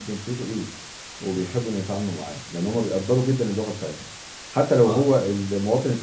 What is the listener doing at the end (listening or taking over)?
listening